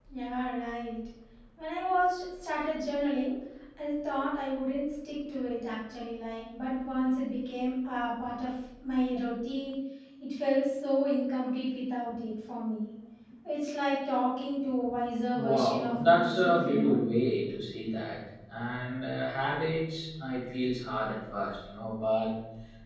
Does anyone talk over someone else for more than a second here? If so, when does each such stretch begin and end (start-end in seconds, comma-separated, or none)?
15.4-17.0